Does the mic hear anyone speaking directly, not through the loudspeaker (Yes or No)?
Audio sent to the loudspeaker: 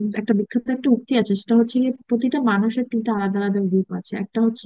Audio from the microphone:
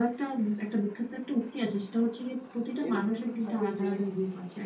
Yes